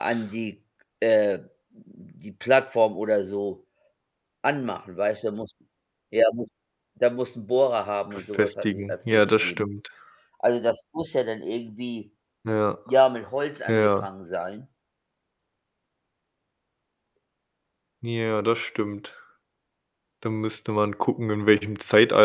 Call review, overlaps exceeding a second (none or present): present